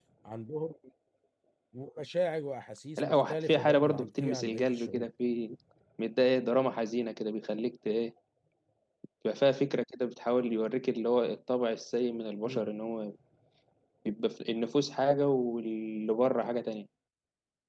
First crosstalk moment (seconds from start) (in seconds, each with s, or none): 3.0 s